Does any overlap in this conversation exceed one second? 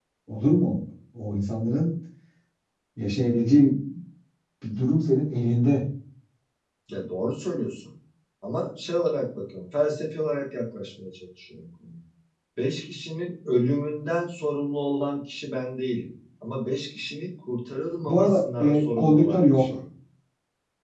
Yes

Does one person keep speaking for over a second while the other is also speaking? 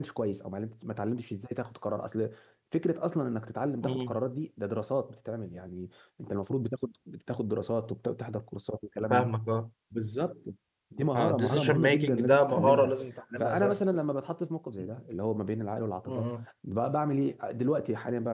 Yes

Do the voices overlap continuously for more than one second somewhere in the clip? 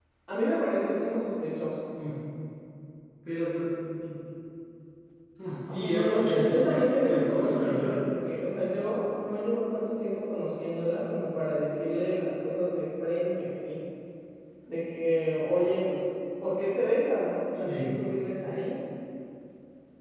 Yes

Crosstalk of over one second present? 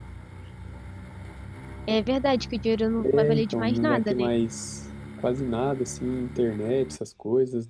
Yes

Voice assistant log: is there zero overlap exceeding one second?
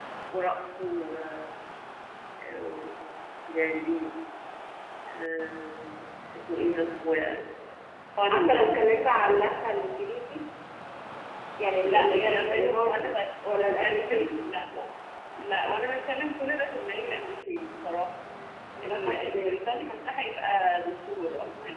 No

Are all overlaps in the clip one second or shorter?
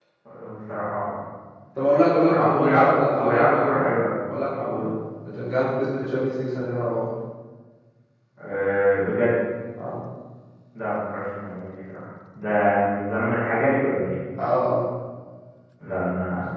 No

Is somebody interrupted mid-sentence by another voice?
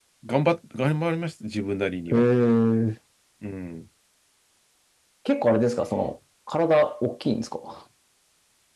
No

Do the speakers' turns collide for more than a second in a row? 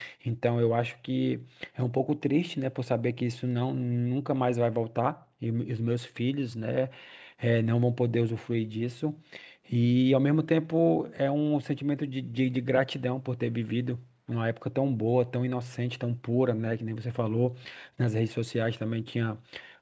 No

